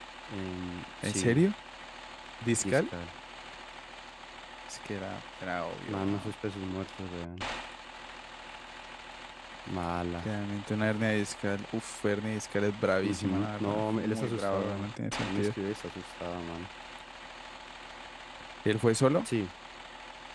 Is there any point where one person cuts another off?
Yes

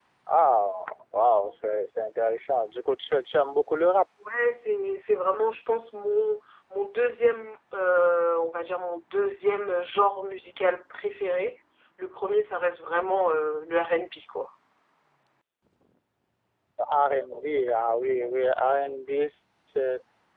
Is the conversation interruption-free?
Yes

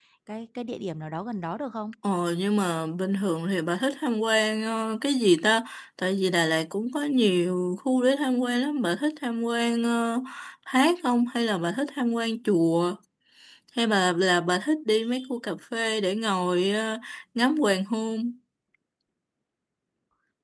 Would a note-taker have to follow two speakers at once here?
No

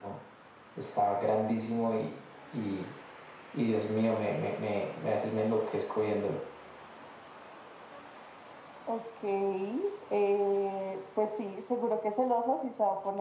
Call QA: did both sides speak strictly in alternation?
Yes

